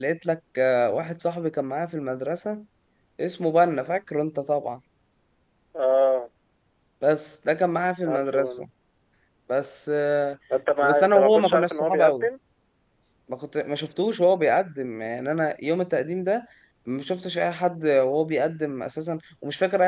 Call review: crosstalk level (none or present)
present